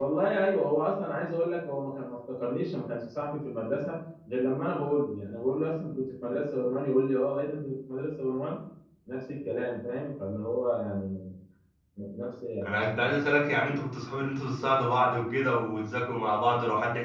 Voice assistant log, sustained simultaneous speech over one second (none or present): none